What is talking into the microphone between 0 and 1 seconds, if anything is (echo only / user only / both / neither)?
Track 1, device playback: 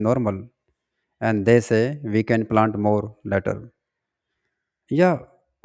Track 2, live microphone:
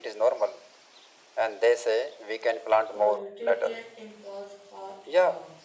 echo only